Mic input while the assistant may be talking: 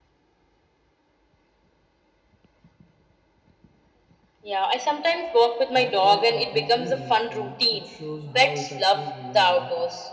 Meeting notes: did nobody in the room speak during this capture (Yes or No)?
No